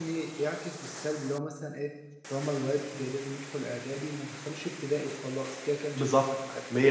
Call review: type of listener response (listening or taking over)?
taking over